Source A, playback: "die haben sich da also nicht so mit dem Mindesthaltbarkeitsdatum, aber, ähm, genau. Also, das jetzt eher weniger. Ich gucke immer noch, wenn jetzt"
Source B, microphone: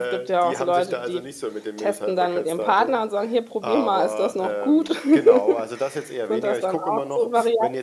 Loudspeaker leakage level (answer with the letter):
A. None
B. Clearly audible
B